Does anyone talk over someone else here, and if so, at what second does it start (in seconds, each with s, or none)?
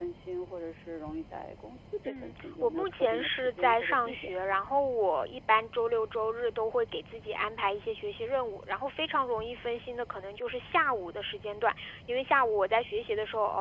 2.0 s